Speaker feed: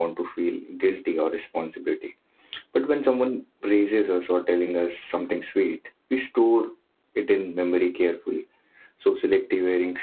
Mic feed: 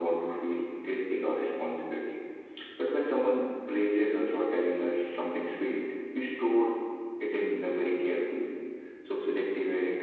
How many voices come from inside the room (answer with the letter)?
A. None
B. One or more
A